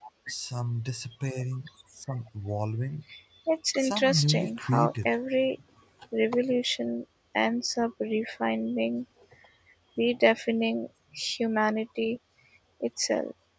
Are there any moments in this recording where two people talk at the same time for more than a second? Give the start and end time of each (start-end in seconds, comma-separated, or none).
3.8-5.2